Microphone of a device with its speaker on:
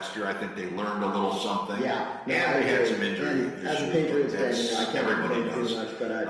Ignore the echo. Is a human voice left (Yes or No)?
No